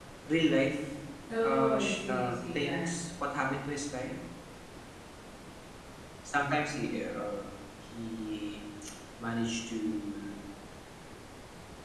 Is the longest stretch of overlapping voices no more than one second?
No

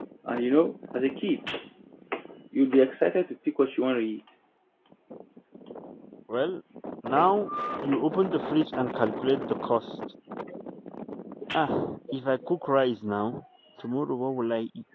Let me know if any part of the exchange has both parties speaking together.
No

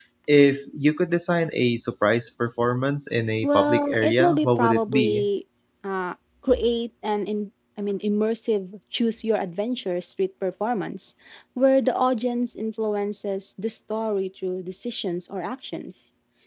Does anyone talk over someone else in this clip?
Yes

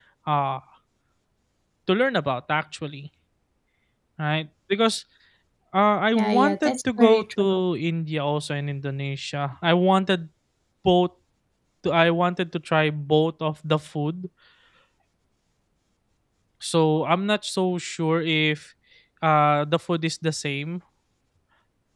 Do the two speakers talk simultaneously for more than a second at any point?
Yes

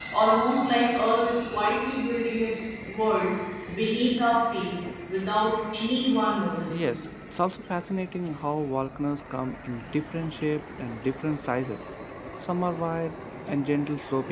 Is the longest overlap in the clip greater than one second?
No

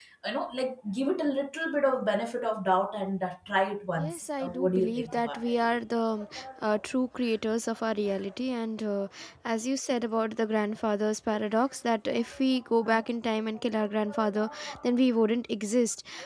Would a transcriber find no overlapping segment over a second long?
No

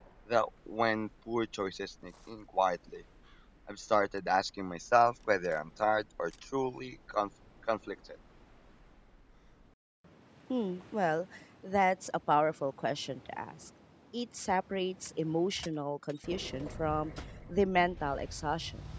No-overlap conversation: Yes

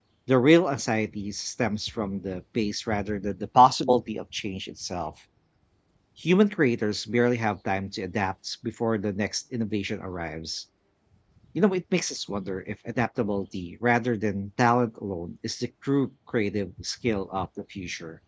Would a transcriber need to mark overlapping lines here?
No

